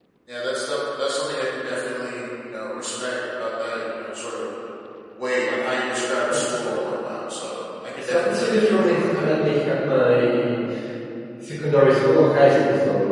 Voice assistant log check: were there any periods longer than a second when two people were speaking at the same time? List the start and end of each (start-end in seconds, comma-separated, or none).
8.0-9.2